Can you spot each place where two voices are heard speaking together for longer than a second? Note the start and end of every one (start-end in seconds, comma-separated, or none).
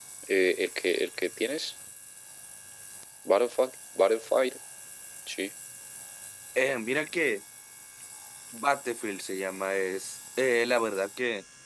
none